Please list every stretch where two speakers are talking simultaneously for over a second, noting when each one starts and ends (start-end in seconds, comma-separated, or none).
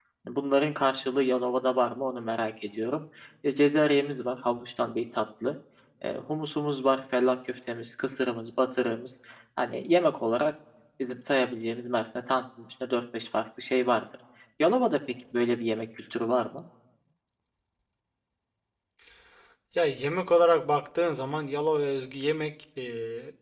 none